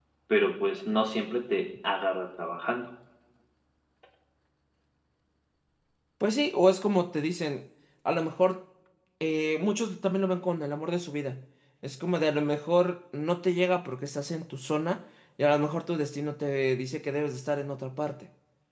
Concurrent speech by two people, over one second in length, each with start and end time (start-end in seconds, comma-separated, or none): none